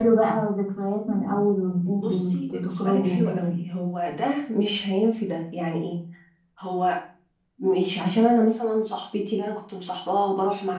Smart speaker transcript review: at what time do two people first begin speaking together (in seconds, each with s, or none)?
1.9 s